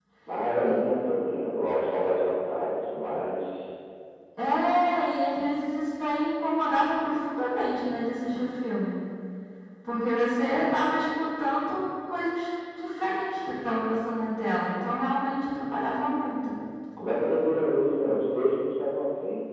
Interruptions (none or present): none